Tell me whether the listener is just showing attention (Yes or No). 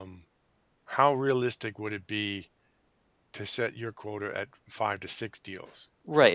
No